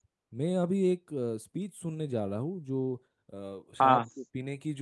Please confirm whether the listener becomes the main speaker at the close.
No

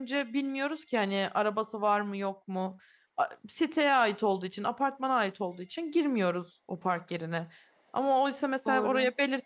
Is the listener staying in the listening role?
Yes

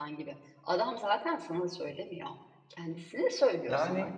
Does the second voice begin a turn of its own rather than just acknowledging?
Yes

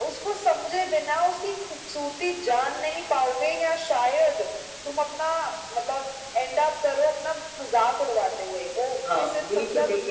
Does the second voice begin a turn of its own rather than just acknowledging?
Yes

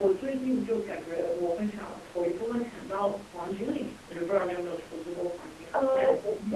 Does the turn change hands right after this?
Yes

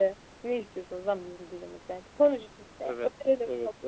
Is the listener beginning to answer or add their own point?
Yes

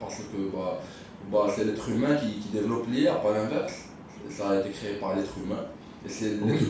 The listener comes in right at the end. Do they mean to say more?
Yes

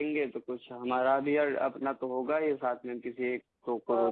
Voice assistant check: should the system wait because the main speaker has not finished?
No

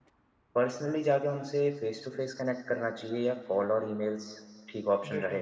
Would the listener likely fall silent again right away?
No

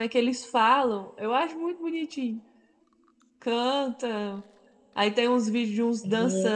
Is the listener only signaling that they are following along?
Yes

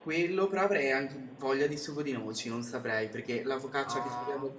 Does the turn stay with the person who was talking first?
Yes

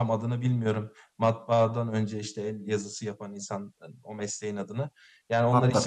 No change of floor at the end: Yes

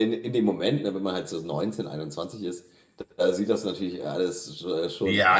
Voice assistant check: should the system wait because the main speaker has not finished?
No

